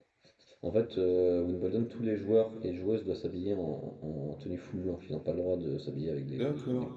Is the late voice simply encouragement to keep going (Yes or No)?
No